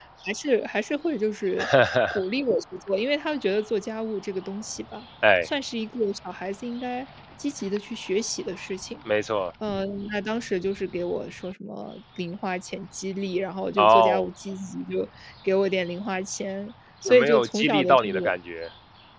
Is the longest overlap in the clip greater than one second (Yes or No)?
Yes